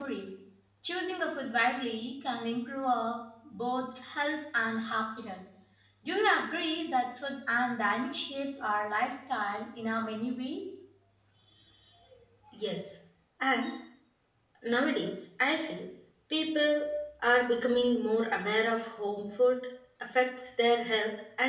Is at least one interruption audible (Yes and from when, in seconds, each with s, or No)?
No